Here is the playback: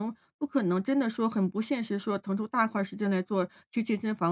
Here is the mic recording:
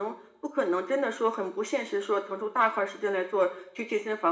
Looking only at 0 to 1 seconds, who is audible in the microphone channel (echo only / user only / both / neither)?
echo only